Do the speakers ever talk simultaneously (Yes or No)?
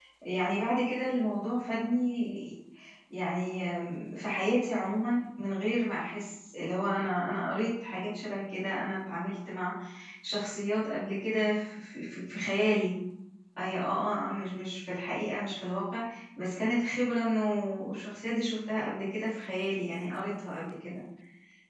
No